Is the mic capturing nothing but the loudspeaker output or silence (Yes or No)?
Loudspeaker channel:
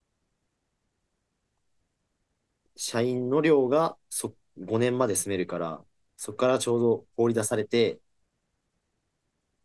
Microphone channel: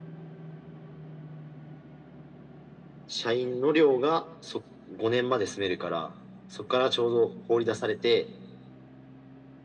Yes